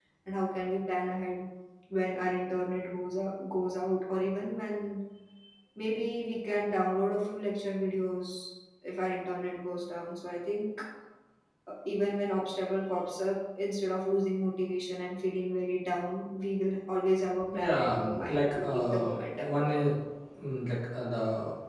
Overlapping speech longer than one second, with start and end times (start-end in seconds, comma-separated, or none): 17.5-19.1